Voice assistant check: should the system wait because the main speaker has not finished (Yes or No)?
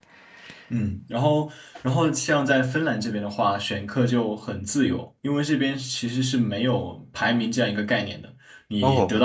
Yes